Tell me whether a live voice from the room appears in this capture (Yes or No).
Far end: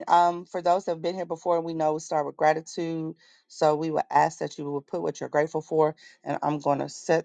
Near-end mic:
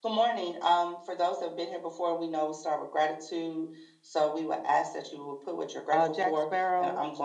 Yes